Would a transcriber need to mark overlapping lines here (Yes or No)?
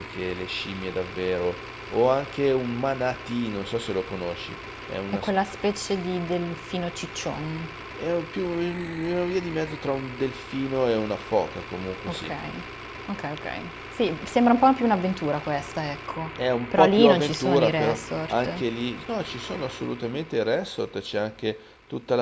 Yes